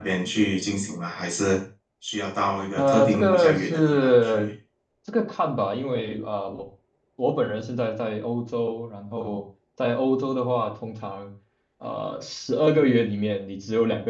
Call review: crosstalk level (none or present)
present